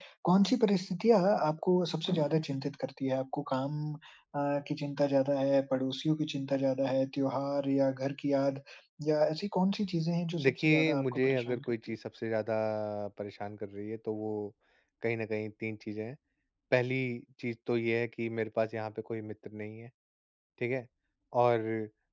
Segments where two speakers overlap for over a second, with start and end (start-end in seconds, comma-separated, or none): 10.4-12.0